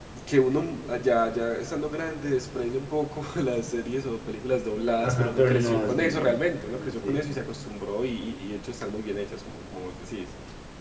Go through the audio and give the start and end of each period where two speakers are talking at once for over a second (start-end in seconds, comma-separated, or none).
5.0-6.3